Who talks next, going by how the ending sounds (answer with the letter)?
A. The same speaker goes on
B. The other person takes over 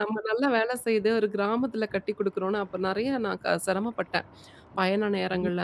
A